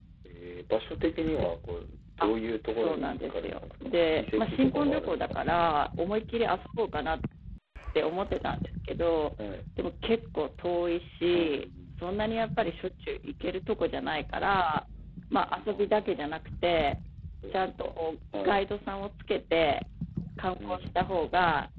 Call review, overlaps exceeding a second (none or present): present